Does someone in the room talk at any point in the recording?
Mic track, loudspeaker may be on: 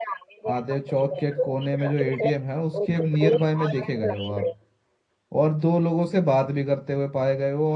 Yes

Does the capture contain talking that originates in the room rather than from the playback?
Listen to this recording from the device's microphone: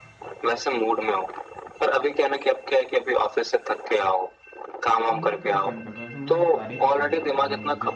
Yes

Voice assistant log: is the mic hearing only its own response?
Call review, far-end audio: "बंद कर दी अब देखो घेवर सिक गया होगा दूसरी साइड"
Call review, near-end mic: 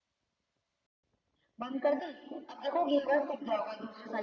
Yes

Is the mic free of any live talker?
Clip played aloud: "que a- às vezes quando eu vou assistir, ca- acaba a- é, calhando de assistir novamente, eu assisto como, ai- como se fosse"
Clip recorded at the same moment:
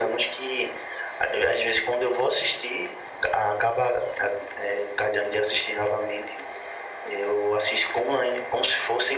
Yes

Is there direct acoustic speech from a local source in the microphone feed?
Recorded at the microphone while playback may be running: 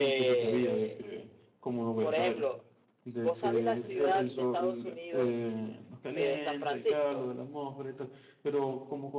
Yes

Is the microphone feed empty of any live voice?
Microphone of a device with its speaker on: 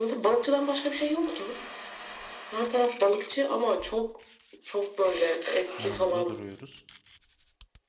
No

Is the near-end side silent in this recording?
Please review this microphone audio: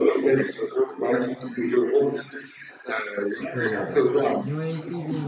No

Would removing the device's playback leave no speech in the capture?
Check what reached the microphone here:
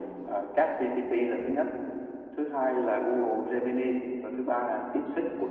Yes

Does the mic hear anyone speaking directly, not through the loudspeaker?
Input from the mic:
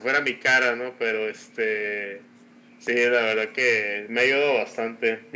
No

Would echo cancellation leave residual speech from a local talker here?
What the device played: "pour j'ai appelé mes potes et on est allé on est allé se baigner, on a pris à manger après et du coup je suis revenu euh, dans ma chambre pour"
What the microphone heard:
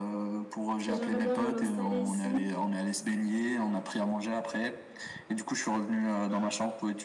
Yes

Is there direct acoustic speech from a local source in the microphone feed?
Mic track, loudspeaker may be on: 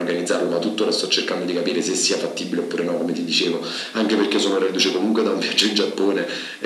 No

